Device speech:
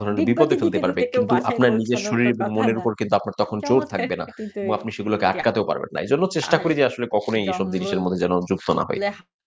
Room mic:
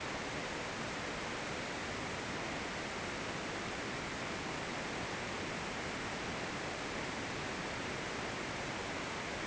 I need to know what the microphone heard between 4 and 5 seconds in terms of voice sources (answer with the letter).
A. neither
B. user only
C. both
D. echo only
A